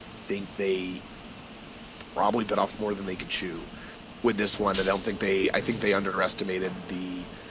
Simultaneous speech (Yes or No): No